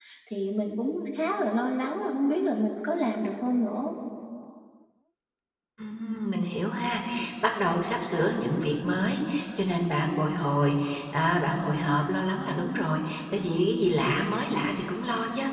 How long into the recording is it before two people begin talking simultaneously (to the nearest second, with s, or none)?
none